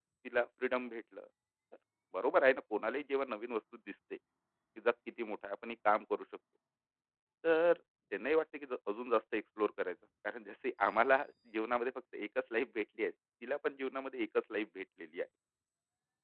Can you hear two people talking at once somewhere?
No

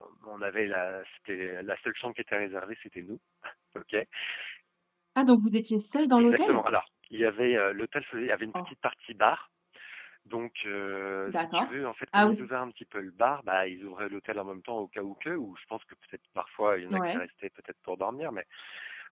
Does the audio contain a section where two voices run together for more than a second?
No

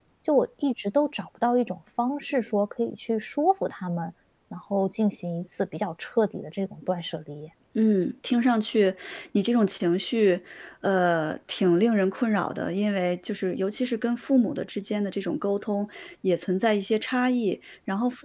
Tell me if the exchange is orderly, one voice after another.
Yes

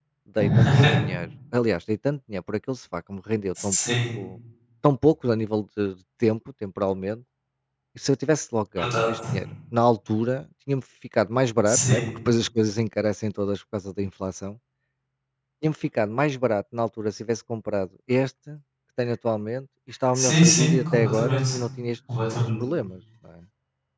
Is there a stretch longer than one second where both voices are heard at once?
Yes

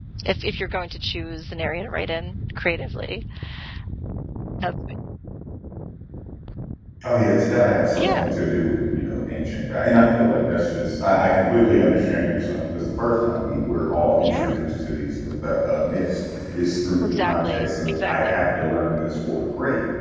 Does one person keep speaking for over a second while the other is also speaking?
Yes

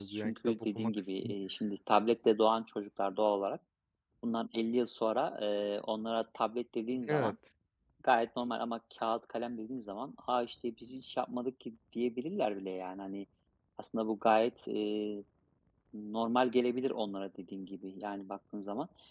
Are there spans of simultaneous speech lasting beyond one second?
Yes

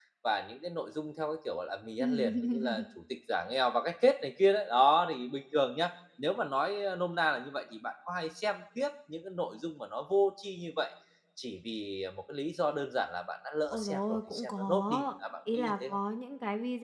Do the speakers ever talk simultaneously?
Yes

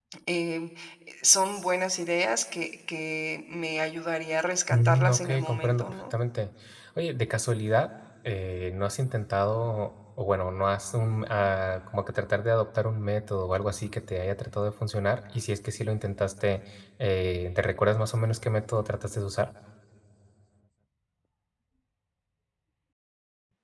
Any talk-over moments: Yes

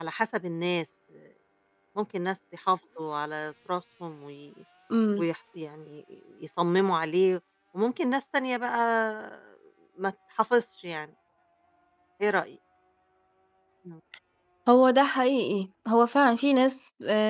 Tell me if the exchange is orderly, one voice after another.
Yes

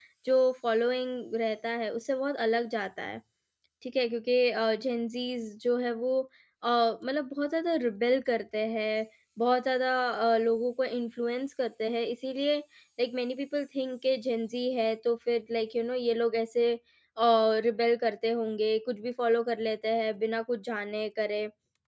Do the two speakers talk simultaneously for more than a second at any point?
No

